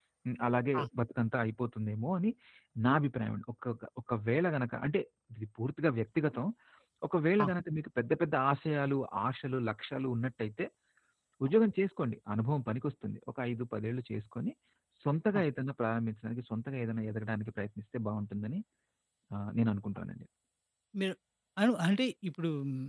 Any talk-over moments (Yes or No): No